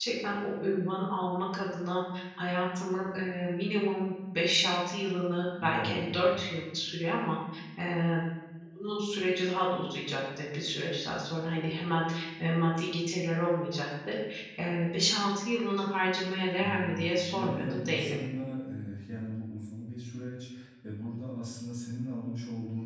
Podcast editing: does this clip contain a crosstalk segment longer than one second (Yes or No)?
Yes